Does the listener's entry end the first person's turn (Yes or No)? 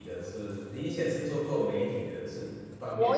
Yes